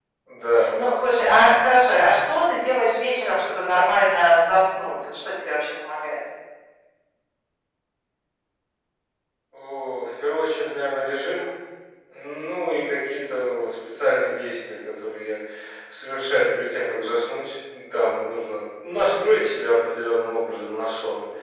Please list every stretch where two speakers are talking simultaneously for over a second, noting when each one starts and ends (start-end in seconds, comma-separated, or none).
none